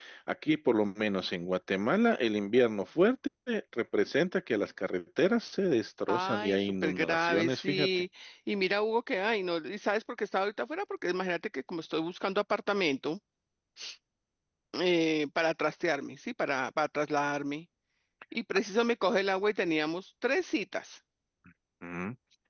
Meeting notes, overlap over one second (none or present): present